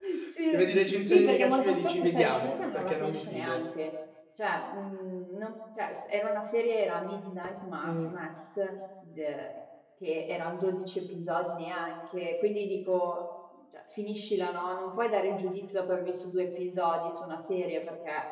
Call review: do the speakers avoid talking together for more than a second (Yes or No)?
No